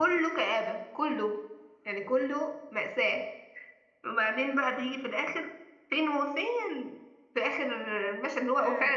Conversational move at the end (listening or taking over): listening